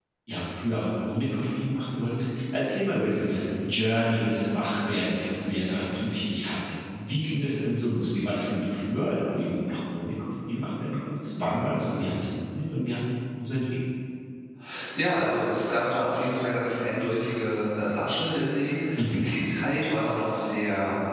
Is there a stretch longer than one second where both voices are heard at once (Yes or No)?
No